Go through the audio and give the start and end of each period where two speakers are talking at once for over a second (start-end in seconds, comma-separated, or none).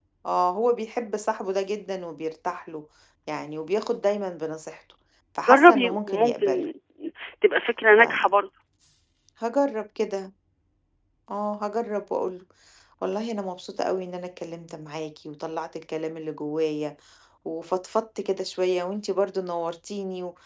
5.5-6.7